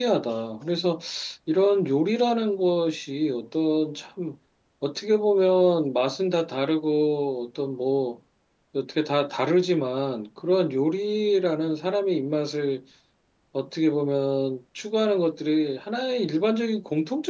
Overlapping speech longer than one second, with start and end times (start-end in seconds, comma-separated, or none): none